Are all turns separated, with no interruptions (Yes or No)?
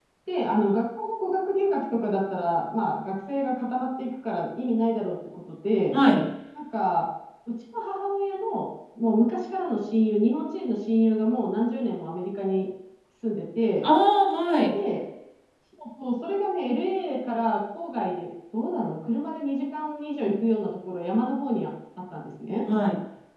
Yes